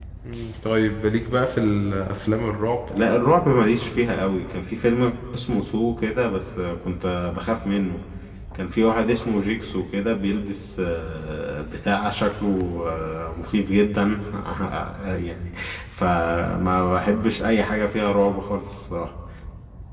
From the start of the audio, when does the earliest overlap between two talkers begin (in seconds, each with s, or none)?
none